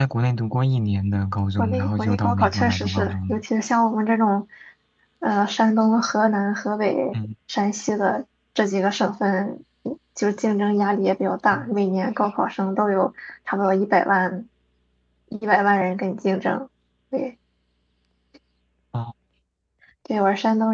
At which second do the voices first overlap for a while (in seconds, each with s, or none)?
1.6 s